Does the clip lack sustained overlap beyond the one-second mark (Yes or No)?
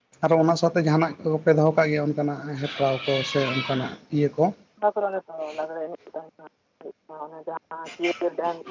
Yes